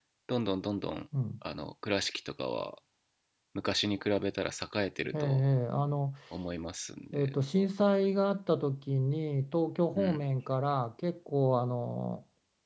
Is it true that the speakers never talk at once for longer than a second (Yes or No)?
Yes